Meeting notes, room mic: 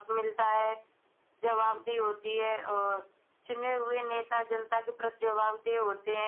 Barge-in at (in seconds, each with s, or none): none